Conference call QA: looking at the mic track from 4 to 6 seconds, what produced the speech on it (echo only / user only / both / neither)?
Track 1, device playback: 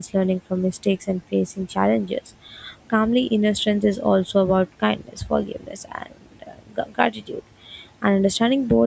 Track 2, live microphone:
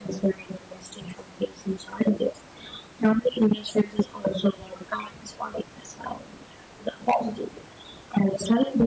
echo only